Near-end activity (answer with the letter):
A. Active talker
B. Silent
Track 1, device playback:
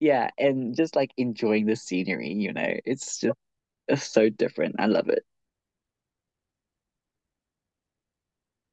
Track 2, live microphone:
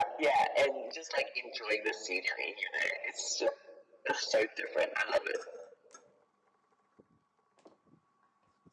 B